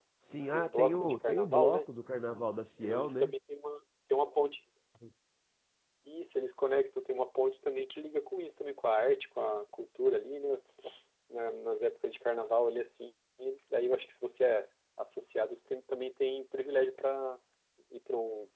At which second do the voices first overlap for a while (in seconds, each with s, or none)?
0.5 s